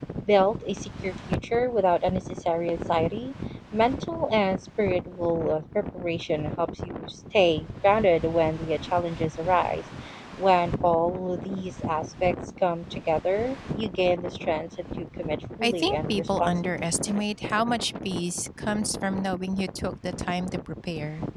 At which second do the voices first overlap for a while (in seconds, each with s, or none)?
15.6 s